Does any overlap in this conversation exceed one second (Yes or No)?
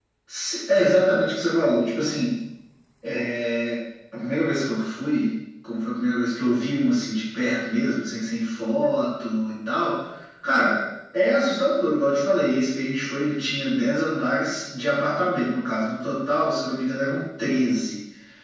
No